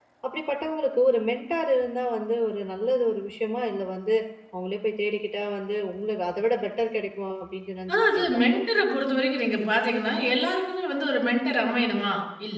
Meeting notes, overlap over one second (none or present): none